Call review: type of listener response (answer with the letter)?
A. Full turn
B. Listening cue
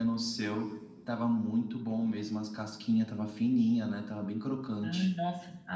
A